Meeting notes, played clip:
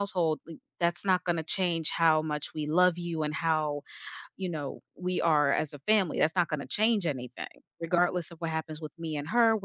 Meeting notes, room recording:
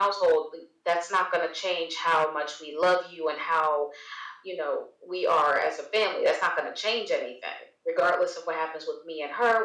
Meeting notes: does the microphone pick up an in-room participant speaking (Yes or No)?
No